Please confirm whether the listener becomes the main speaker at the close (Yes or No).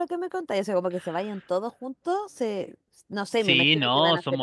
Yes